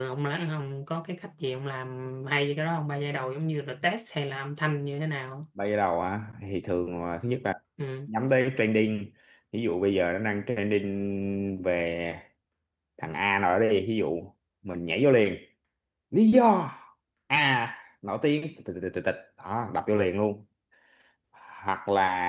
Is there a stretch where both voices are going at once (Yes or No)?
No